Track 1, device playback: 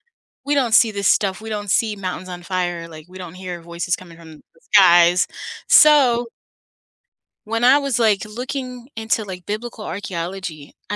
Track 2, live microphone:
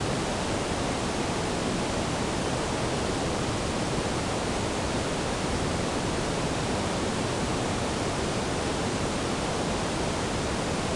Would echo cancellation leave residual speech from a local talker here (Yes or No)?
No